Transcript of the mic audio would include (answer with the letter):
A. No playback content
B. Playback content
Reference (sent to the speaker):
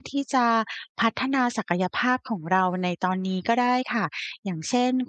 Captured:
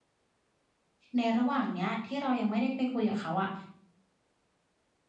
A